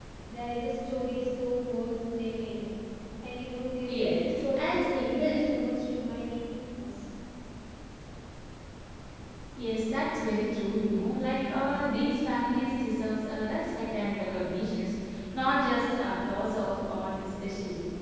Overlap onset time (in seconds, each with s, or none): 3.8 s